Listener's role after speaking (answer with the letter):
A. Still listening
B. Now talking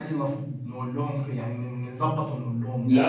B